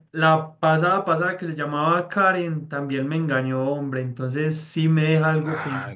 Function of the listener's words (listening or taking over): listening